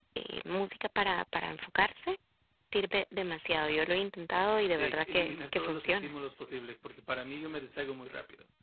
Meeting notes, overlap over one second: present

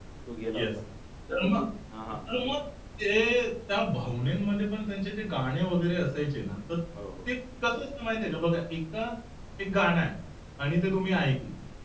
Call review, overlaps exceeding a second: none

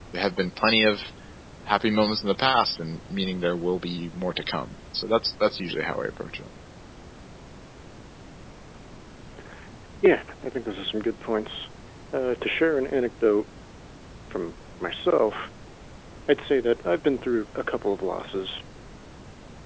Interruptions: none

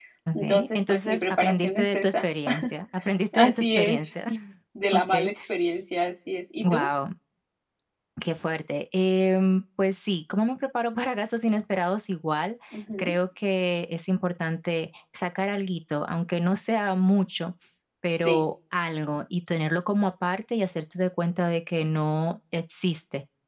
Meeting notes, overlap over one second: present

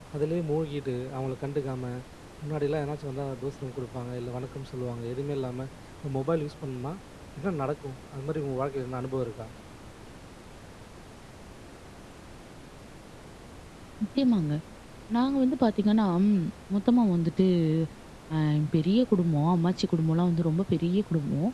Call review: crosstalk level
none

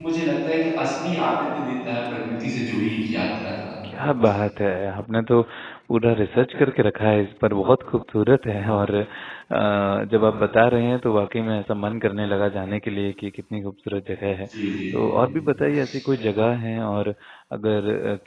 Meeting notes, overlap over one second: none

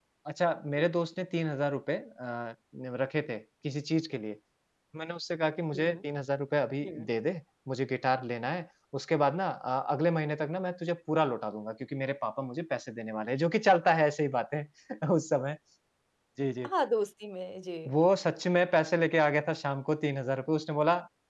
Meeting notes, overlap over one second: none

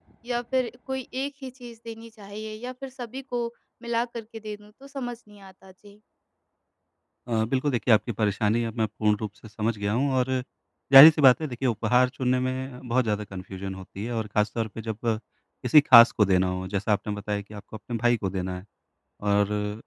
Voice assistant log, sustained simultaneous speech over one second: none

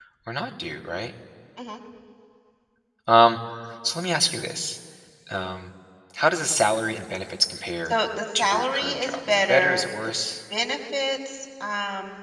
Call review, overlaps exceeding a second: present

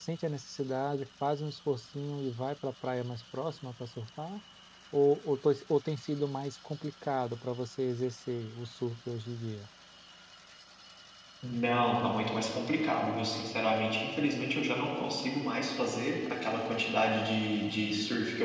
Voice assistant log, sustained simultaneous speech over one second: none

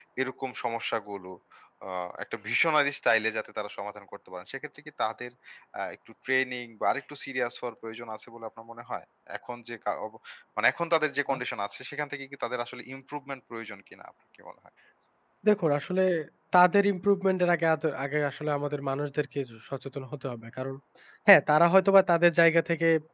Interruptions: none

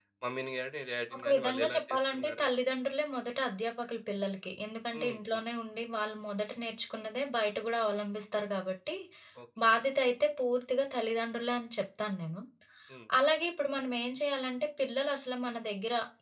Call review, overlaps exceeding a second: present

